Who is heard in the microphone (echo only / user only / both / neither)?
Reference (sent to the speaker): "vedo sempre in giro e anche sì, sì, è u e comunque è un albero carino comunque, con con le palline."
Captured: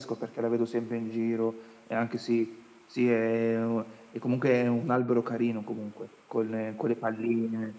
echo only